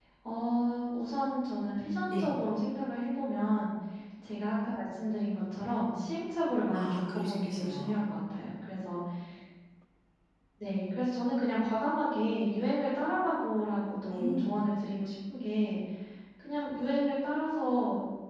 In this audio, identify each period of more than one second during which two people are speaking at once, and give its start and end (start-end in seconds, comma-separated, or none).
6.7-8.1